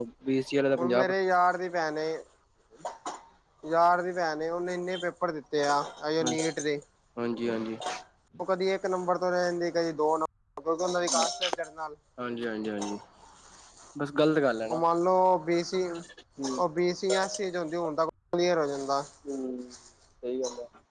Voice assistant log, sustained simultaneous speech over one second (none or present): none